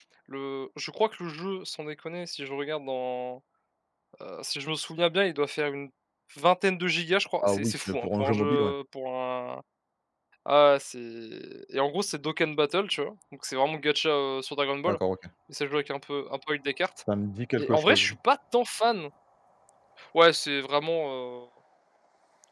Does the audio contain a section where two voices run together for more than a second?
Yes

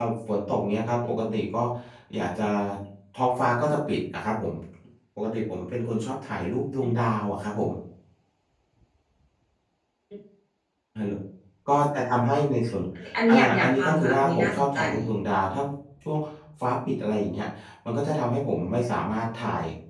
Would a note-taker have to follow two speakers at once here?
Yes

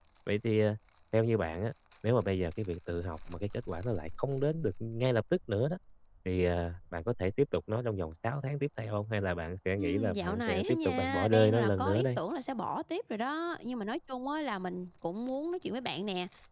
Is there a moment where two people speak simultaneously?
Yes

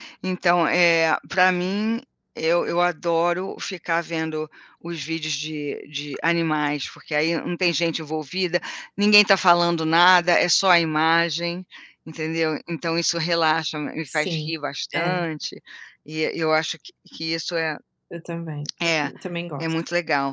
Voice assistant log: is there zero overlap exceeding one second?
Yes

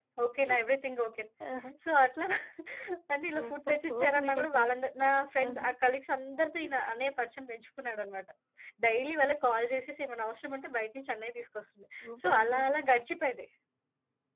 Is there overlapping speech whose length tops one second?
Yes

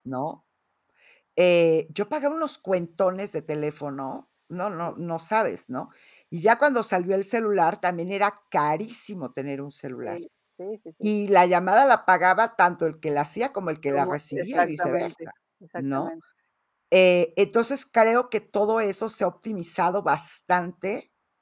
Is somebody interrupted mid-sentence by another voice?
Yes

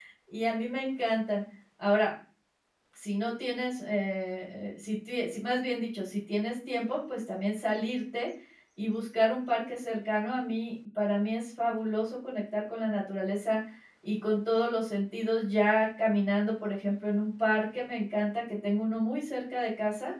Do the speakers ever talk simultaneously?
No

